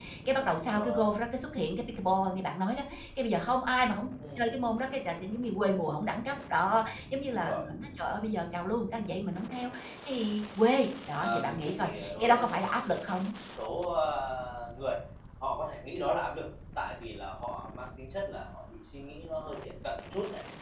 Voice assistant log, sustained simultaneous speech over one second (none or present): present